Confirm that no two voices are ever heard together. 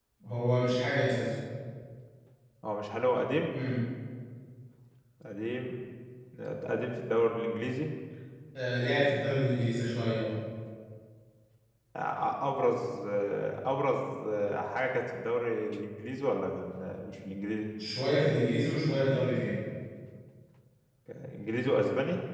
Yes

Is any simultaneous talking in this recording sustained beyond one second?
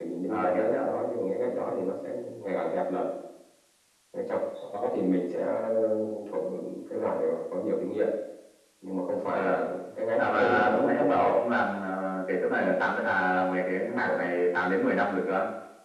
Yes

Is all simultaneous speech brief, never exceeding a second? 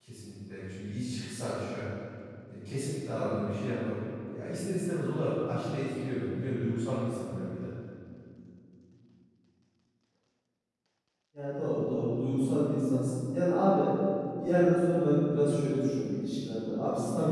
Yes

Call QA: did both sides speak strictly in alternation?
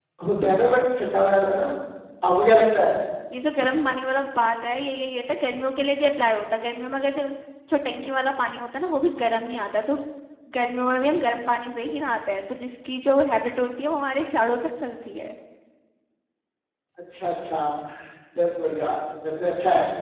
Yes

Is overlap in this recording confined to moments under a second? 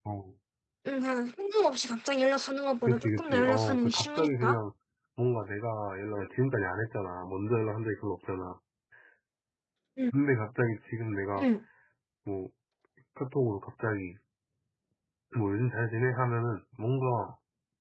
No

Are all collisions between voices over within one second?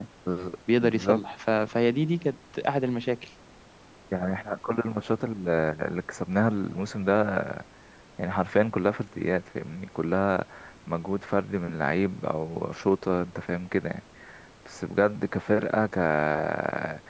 Yes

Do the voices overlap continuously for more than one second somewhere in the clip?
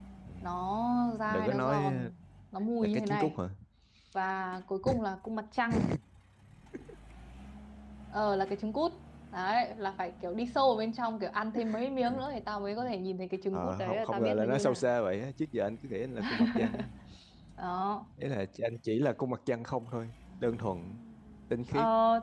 Yes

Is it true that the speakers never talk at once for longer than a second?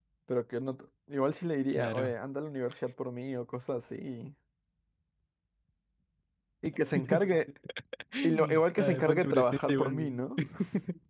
No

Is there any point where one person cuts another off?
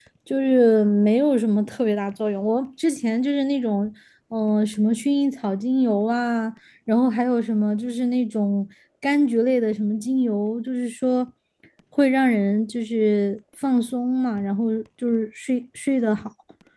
No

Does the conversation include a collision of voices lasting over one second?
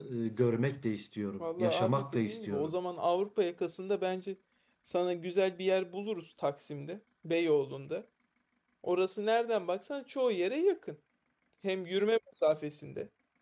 Yes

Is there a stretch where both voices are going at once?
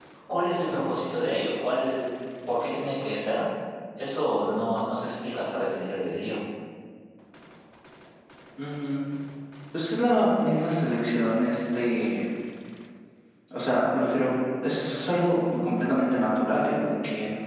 No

